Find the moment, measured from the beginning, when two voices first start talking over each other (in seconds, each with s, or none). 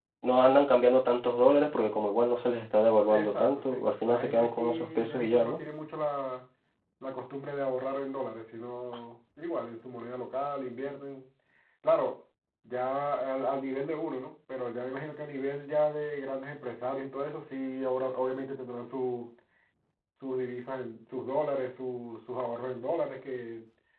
3.1 s